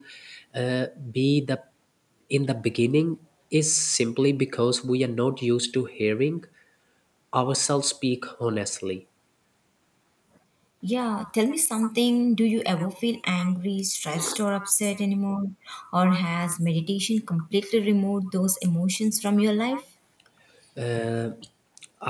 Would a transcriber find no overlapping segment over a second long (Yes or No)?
Yes